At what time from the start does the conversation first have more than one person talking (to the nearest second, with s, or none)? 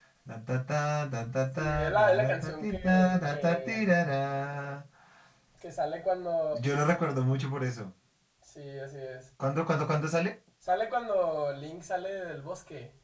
2 s